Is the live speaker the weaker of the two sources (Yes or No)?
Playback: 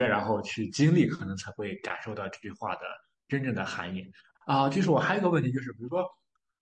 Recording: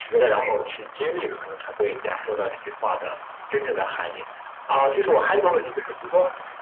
No